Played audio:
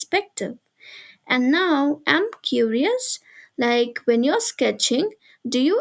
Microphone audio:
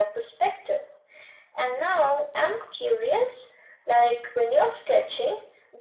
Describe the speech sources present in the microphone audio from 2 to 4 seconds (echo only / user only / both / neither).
echo only